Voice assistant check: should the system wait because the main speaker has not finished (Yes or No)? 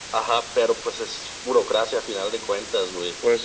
Yes